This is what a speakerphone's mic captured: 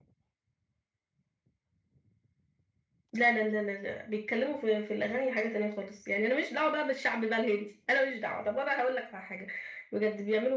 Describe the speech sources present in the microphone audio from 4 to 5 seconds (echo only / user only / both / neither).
echo only